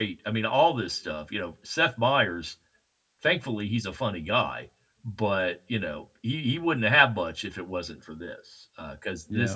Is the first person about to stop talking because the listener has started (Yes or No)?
Yes